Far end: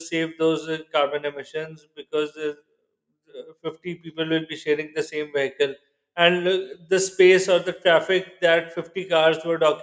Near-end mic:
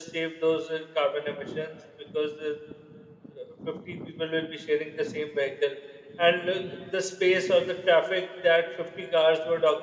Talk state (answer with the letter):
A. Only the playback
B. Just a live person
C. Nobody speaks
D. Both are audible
A